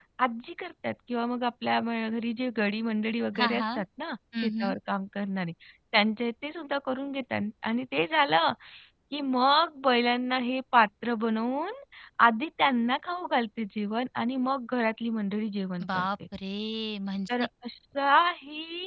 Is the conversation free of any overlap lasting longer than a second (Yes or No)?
Yes